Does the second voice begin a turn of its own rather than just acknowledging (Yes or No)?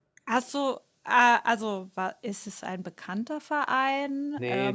Yes